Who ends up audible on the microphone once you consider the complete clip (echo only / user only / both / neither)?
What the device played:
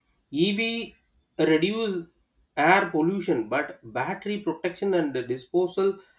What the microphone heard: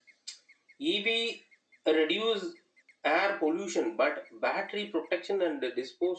echo only